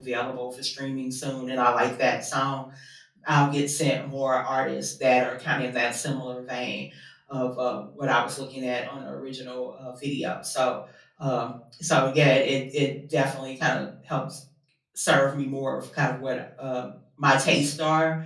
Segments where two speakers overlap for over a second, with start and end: none

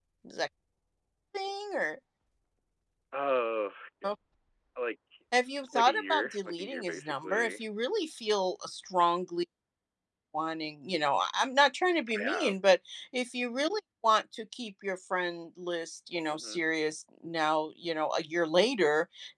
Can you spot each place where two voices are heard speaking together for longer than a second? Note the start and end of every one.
5.7-7.6

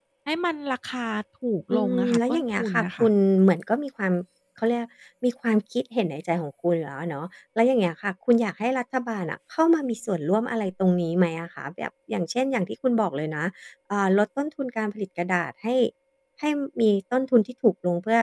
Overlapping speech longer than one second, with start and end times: 1.7-3.1

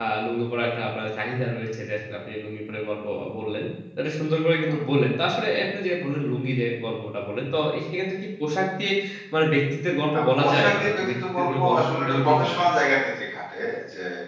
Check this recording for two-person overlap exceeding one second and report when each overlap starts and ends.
10.1-12.5

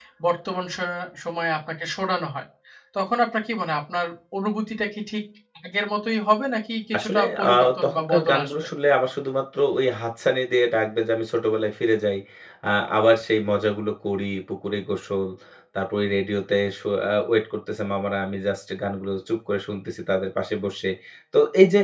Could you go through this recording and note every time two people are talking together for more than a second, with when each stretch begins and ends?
7.0-8.5

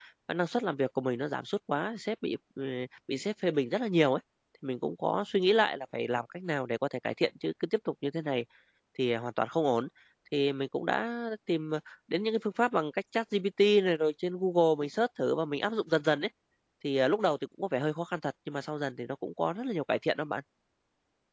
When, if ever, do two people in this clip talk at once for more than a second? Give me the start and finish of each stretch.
none

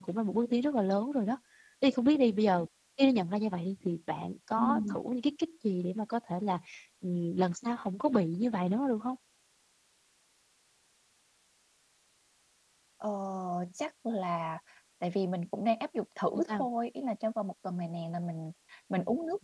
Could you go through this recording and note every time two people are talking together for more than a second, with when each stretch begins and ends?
none

